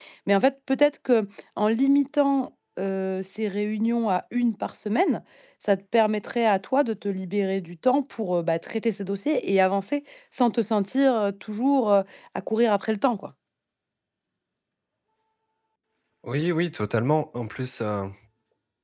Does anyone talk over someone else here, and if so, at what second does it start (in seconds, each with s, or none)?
none